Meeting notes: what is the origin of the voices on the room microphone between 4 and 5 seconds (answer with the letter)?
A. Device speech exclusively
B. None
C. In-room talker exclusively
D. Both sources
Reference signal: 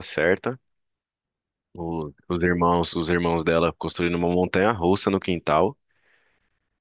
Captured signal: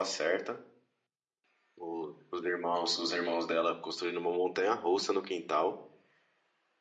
A